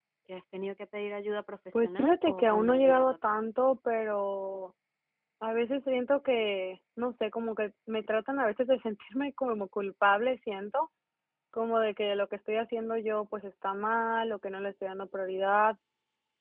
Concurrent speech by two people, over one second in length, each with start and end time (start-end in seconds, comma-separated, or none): 1.8-3.4